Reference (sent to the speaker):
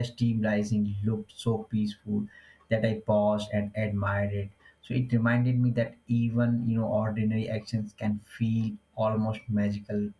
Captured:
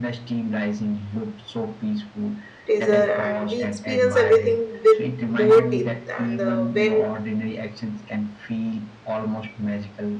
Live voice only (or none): teaser and we experience everything with more deep and uh, when